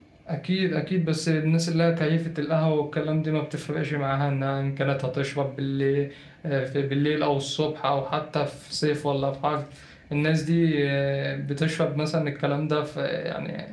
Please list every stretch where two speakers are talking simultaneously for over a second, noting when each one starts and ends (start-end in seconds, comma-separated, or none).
none